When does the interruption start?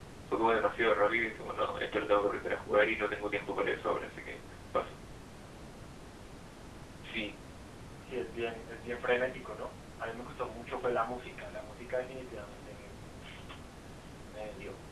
none

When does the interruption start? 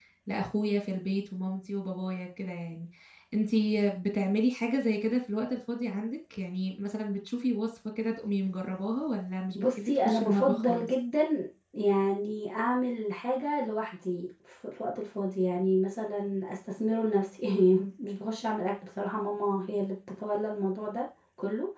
9.6 s

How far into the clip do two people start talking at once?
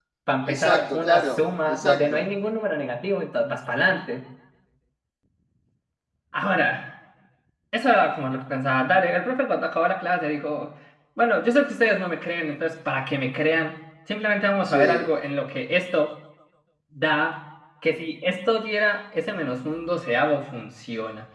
0.5 s

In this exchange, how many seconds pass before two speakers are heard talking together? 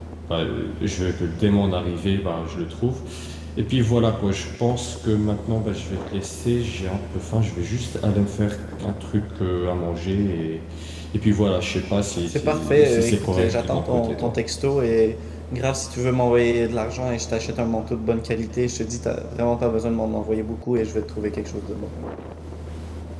12.3 s

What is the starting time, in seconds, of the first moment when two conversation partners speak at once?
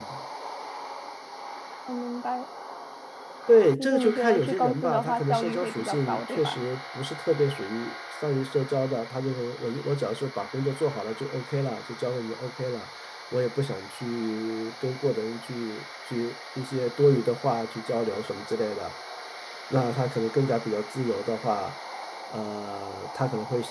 3.8 s

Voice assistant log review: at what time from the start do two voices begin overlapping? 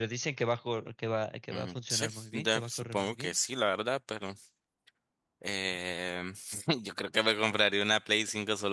1.5 s

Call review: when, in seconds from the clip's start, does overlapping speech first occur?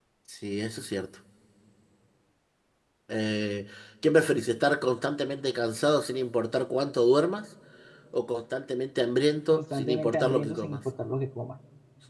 9.5 s

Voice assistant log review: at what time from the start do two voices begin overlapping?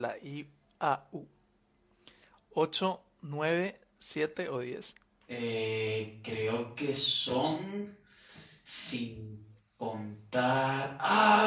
none

